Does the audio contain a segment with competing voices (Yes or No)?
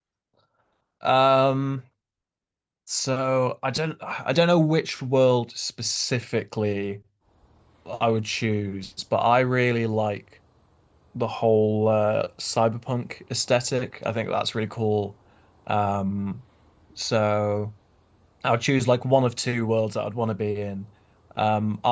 No